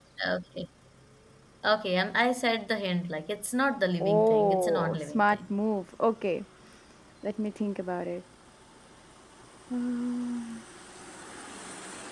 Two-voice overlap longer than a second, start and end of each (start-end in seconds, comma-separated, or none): 4.0-5.4